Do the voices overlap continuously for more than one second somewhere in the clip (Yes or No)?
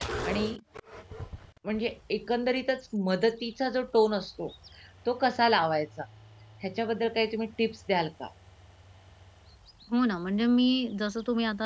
No